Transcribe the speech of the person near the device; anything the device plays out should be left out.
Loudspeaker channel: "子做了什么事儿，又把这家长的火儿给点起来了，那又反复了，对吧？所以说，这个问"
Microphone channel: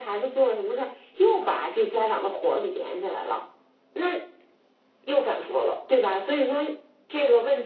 none

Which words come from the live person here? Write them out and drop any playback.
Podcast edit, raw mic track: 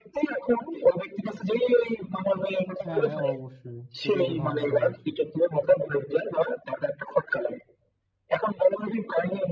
হ্যাঁ অবশ্যই এটাই তো ধারণা করা উচিত

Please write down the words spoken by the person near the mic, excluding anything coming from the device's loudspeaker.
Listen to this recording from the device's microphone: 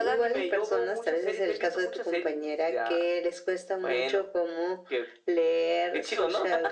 none

